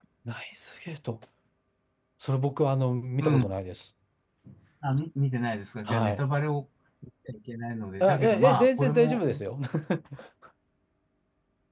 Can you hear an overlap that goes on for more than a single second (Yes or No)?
Yes